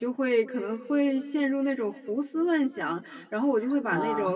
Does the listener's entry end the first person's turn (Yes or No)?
No